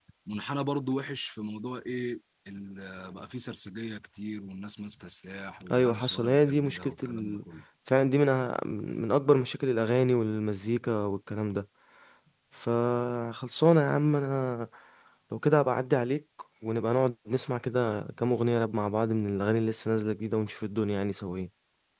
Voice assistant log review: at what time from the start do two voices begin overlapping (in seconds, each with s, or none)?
5.7 s